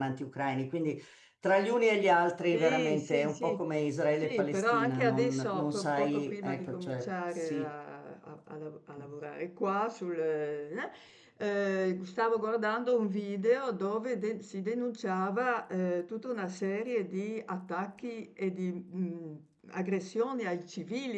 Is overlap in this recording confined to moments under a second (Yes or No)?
No